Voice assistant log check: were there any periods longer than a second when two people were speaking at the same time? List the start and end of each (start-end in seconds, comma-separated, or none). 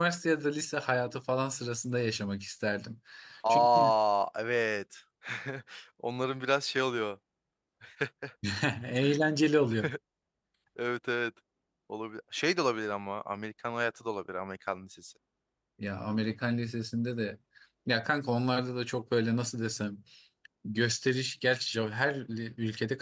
none